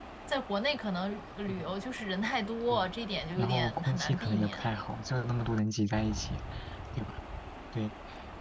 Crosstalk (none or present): present